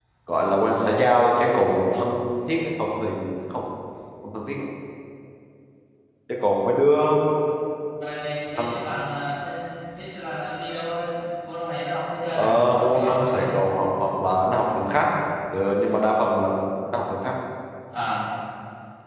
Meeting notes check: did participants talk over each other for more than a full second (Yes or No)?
Yes